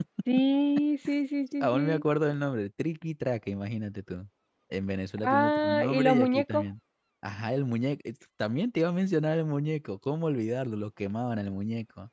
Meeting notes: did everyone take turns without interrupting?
No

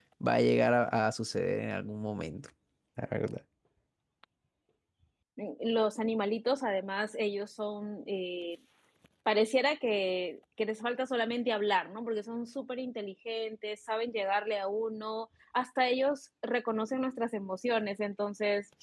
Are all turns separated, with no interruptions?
Yes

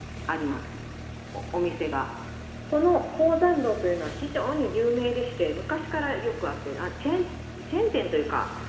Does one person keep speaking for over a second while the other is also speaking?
No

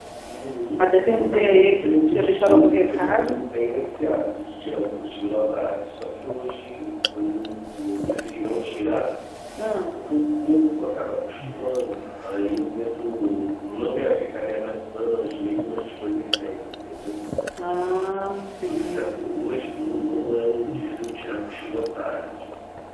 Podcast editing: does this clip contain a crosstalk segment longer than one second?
Yes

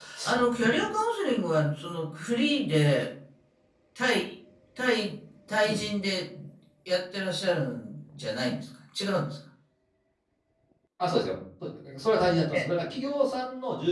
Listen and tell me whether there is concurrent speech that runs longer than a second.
No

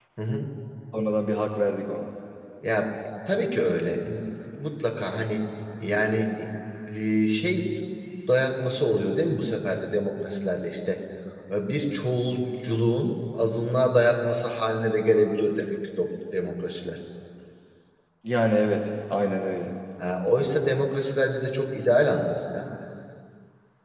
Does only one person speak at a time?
Yes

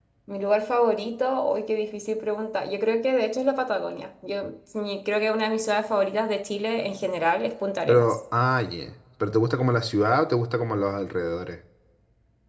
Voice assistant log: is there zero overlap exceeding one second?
Yes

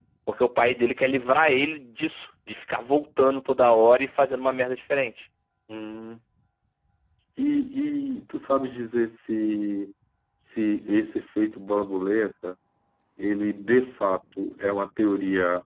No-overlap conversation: Yes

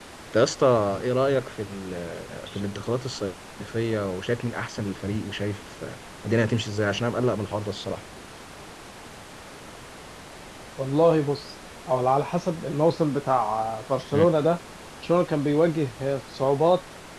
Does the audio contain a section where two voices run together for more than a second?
No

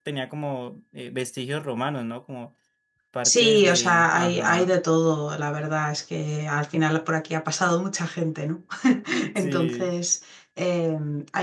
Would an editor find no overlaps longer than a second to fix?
No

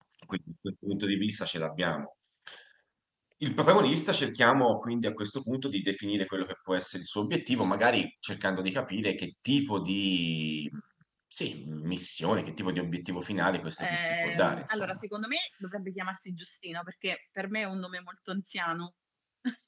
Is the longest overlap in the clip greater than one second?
Yes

